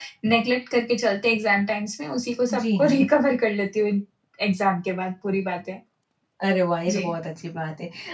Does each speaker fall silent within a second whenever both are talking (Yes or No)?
Yes